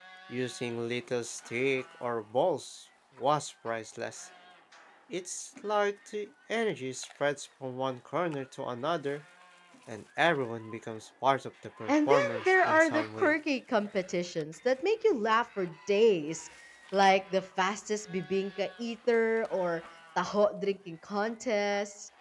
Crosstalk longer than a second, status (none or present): present